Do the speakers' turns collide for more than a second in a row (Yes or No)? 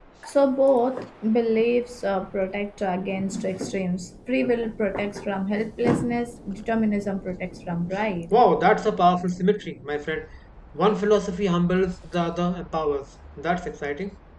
No